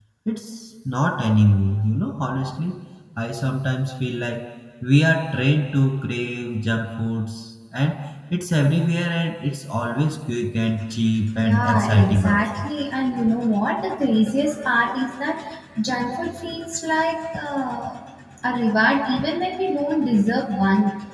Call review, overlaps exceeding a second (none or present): present